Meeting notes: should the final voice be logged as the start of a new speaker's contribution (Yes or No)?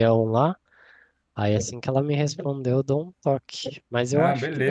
No